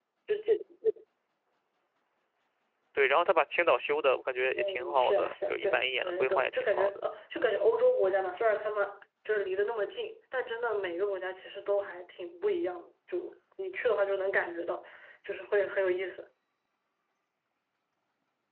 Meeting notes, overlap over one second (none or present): present